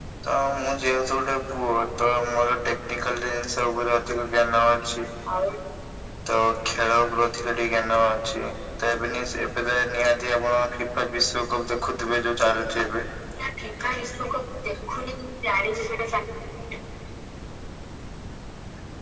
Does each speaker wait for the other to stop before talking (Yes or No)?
Yes